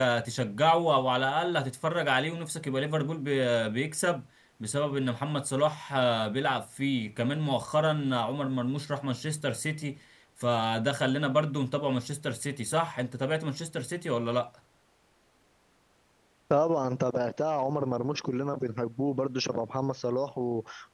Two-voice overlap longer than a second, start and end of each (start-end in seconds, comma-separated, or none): none